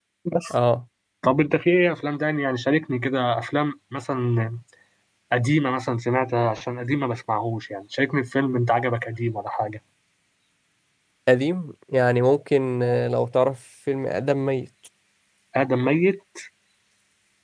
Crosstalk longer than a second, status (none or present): none